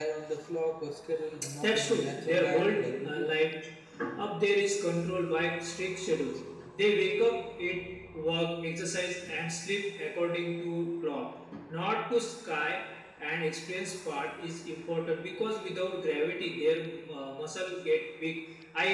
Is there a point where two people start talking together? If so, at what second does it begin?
2 s

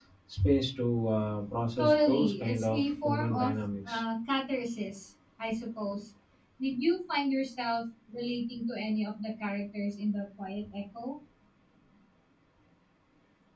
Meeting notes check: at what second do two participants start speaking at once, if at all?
2 s

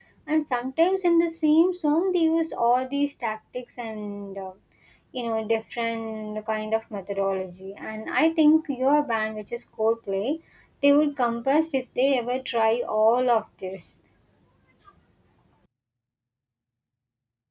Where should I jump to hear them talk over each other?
none

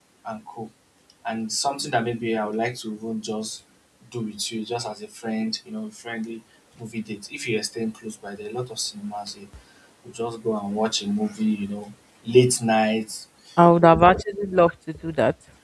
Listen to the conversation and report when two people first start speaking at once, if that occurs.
none

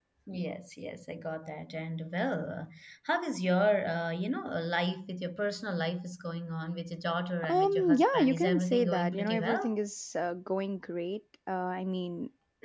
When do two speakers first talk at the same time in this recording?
7 s

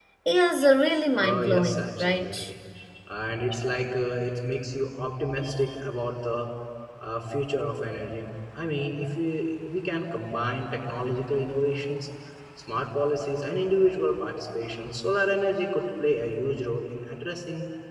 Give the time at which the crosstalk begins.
1 s

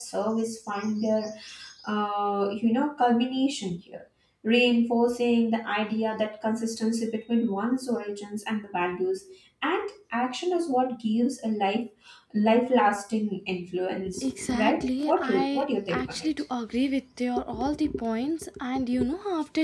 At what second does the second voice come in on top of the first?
14 s

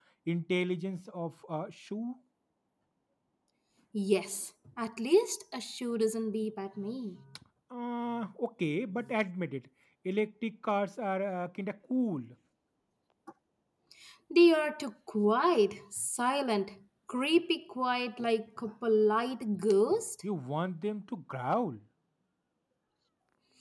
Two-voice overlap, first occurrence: none

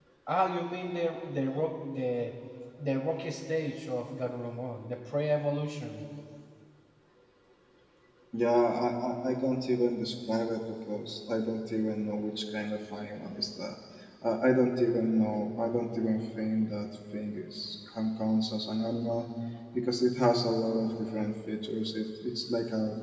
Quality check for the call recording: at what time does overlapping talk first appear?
none

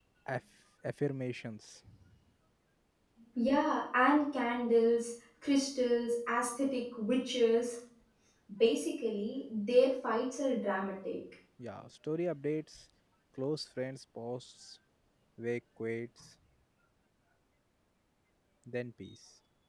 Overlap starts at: none

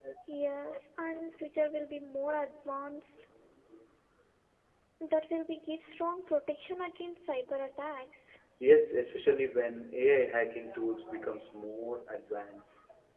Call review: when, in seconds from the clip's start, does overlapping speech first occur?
none

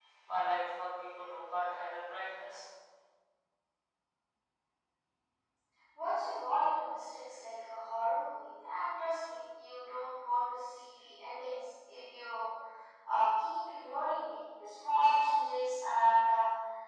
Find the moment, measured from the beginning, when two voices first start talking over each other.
none

